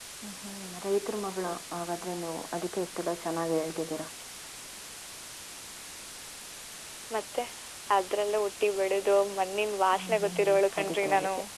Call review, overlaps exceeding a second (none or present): present